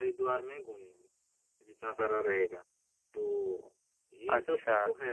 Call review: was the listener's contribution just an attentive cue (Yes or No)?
No